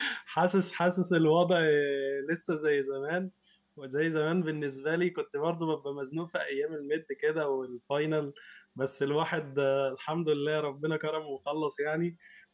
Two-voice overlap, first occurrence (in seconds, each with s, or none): none